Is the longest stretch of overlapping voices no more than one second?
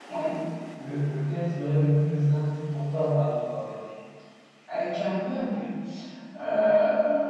Yes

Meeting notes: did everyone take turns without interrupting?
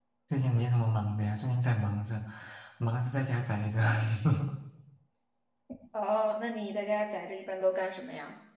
Yes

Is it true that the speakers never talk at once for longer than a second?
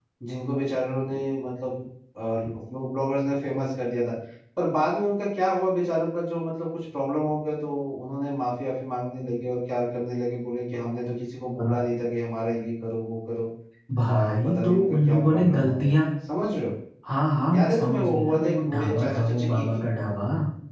No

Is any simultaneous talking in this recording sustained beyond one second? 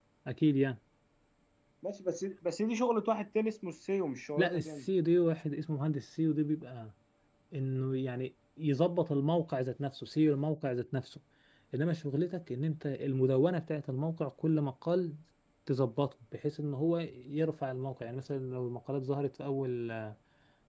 No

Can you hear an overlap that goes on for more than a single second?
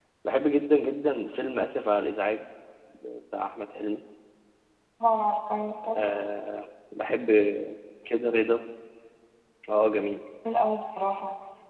No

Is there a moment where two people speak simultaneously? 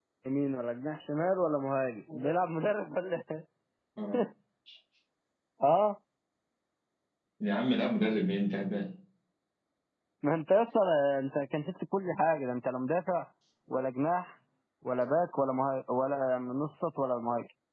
No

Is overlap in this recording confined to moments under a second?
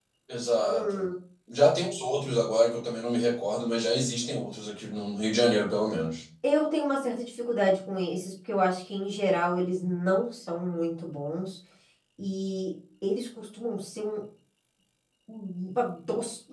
Yes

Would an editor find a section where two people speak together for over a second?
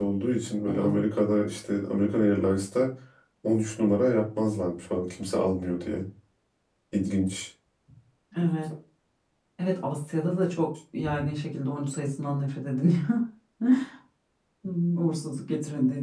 No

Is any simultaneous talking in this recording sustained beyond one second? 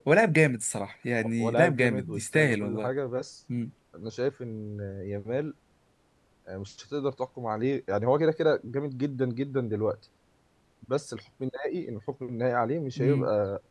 Yes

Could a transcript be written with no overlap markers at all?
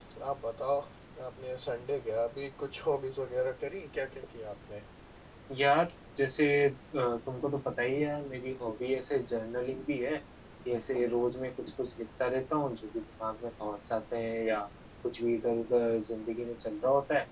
Yes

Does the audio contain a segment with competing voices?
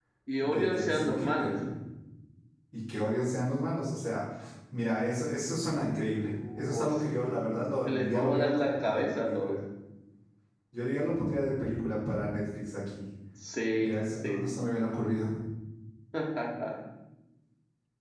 Yes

